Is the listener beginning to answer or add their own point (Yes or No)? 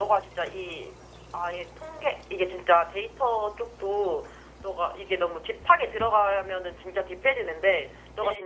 No